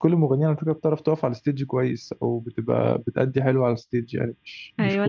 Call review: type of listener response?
taking over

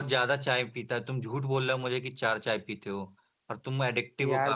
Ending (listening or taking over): taking over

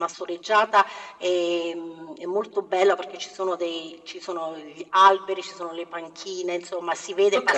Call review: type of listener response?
listening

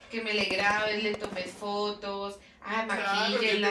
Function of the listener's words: taking over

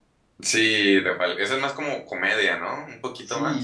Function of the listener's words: taking over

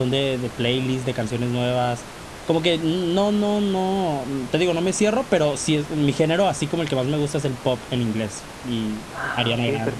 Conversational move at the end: taking over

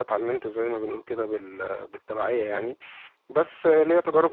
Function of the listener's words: listening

